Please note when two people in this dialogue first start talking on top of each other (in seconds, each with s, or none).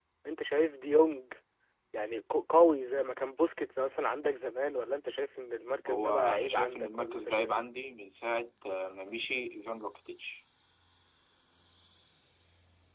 5.9 s